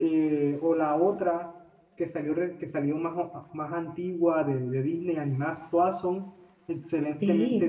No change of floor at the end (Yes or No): No